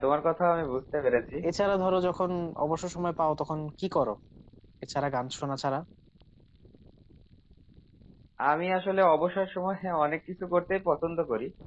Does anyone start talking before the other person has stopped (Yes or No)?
No